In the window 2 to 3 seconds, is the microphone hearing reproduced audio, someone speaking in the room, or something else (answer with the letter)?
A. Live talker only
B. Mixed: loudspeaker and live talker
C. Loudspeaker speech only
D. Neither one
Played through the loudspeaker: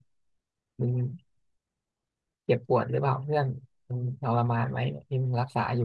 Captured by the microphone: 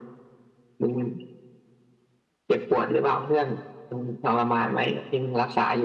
C